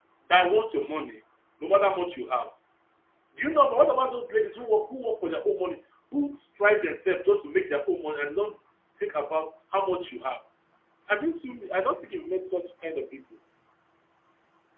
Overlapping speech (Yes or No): No